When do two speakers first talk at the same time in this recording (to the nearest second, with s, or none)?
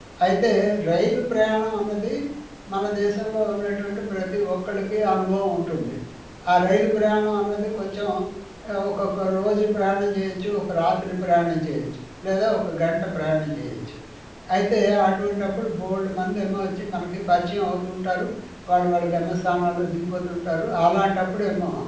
none